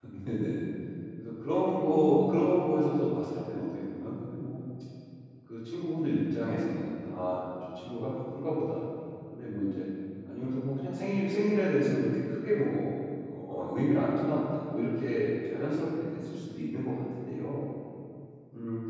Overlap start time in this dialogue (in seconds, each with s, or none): none